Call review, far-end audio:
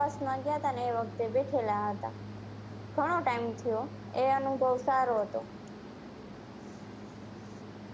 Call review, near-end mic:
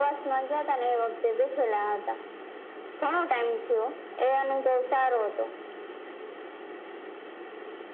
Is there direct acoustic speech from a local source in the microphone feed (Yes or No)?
No